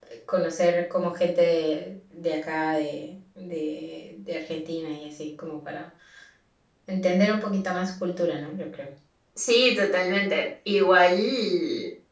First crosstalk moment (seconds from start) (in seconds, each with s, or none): none